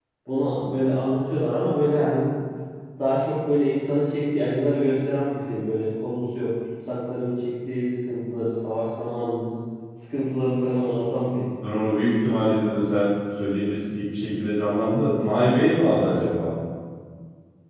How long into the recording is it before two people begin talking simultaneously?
none

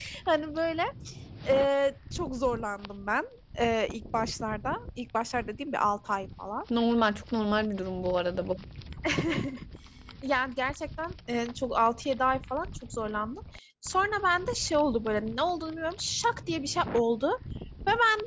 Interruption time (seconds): none

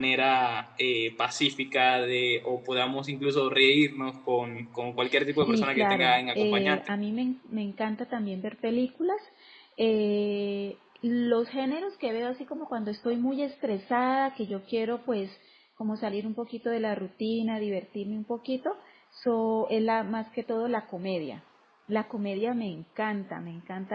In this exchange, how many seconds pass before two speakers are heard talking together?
5 s

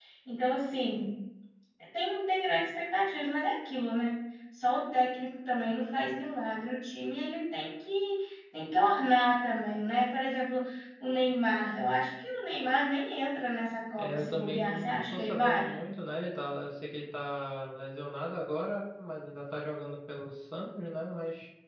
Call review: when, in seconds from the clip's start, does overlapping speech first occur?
14 s

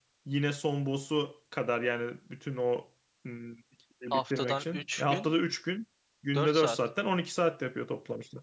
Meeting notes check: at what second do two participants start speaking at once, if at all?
4 s

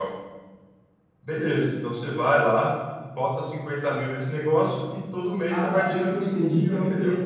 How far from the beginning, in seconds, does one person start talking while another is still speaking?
6 s

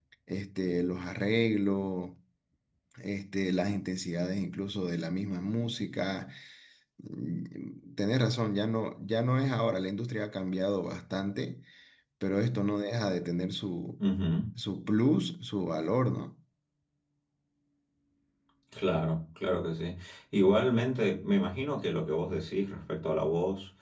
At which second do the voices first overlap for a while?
none

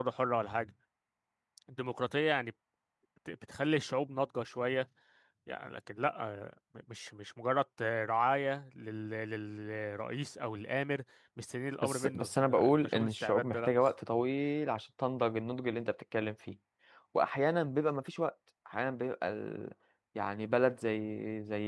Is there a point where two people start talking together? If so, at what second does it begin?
12 s

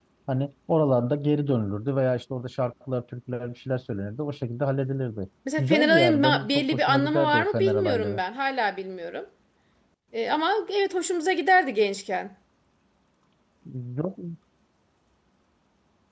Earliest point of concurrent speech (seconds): 5 s

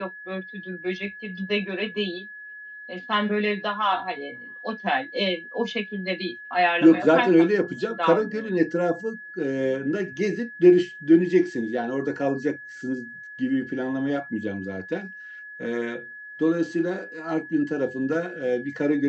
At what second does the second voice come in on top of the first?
7 s

